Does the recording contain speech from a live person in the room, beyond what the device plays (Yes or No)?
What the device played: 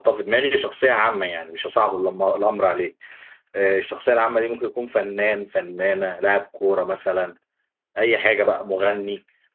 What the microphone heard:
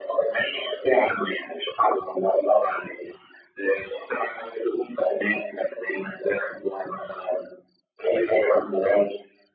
No